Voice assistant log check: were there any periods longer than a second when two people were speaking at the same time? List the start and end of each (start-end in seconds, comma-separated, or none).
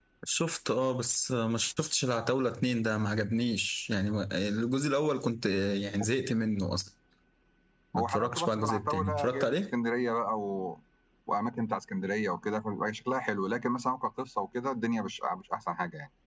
8.0-9.7